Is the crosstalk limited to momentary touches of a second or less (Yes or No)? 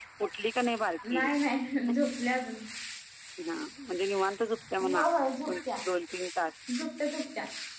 Yes